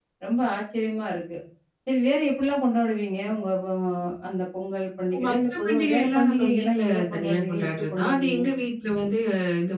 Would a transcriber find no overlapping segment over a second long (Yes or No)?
No